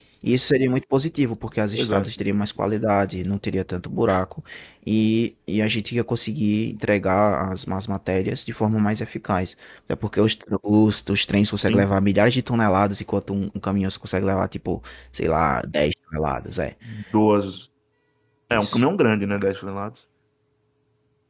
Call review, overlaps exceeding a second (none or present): none